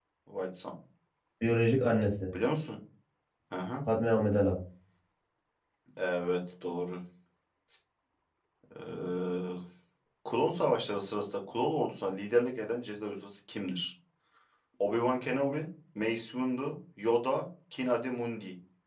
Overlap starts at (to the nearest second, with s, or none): none